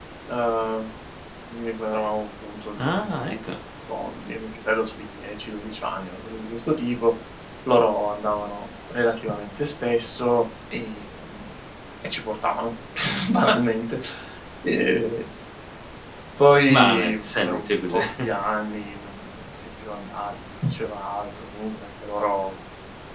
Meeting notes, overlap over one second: present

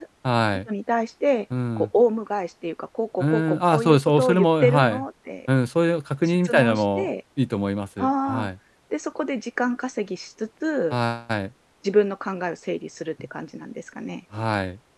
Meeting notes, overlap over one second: present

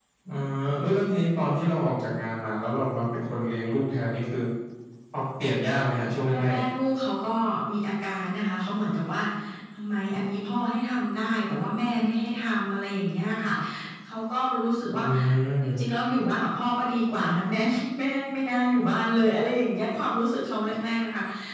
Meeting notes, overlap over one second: none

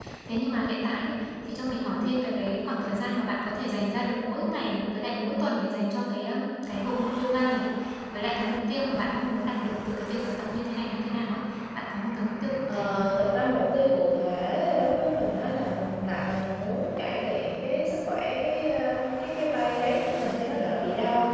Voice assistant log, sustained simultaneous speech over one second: none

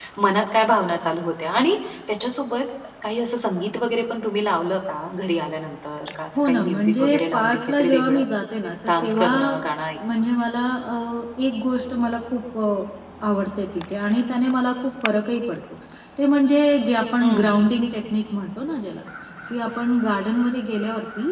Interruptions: present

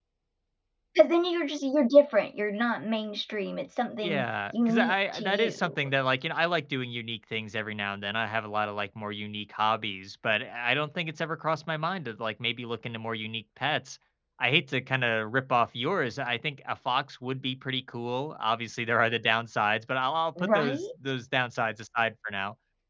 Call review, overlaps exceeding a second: present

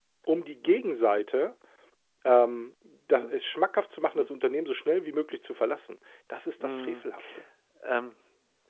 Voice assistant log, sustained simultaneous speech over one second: none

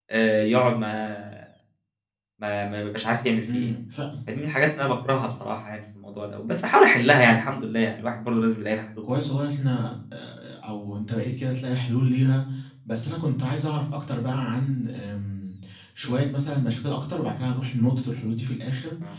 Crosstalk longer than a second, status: none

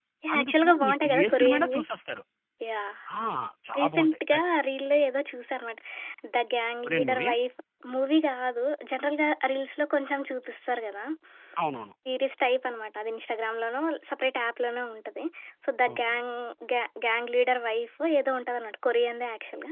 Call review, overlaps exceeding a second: present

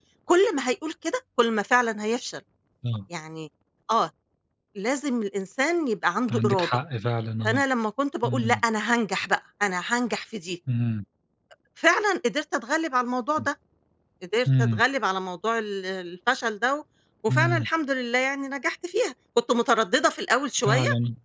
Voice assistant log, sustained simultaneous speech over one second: none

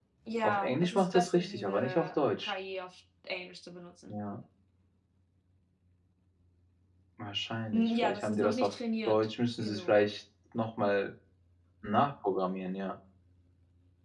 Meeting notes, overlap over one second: present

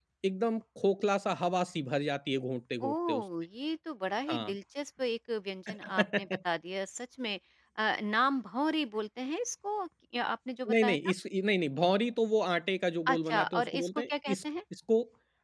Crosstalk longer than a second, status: present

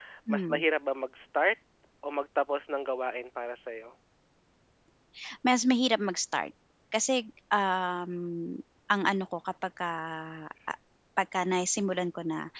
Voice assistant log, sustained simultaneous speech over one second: none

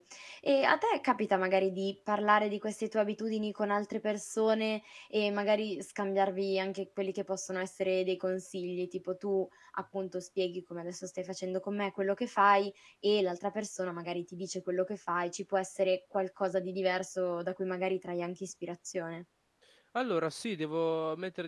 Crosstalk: none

